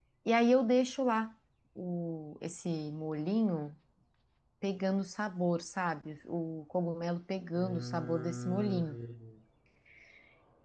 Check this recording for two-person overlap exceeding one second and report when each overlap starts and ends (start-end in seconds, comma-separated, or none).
7.5-9.0